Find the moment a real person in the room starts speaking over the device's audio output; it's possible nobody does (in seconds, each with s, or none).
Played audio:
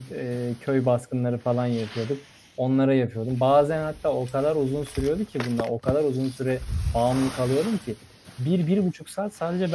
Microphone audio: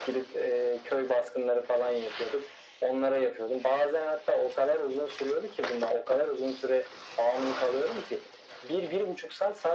none